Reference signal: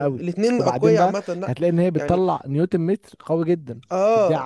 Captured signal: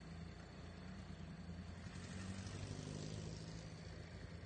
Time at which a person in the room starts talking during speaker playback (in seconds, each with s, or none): none